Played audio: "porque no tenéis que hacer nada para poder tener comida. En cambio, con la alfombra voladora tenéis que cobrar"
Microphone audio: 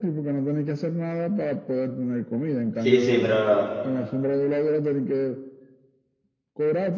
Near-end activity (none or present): present